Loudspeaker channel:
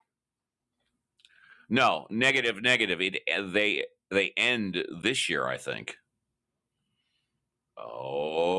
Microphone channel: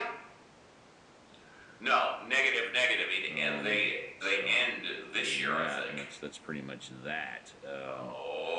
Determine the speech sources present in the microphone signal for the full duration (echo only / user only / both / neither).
both